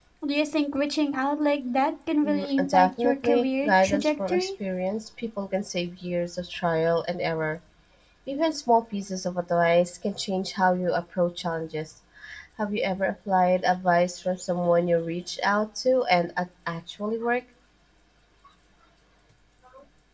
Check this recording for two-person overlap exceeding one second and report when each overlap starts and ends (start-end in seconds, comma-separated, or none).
2.2-4.5